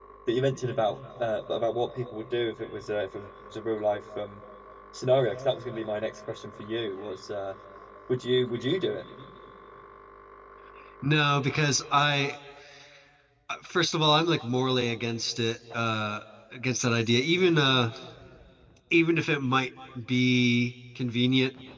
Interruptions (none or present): none